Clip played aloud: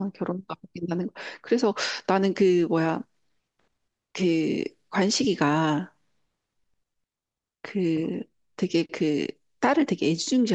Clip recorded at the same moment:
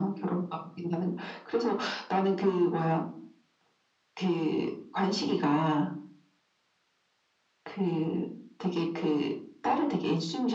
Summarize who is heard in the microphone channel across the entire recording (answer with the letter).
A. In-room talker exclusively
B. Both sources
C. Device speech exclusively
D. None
C